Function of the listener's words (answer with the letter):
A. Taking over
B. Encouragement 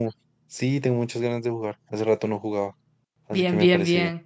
A